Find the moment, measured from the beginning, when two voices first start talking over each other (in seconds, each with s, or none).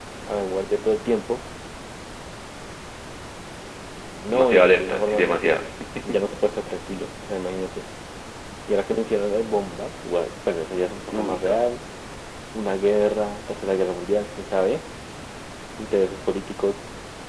4.3 s